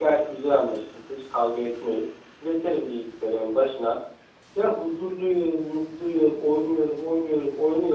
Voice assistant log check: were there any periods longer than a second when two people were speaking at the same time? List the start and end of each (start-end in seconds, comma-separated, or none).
none